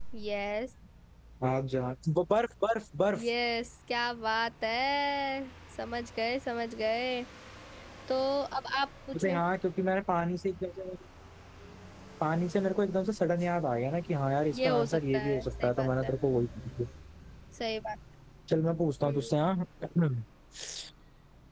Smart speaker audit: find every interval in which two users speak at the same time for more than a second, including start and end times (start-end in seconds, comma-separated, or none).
14.6-16.1